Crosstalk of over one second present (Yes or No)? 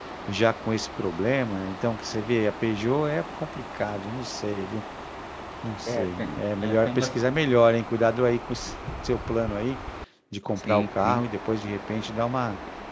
Yes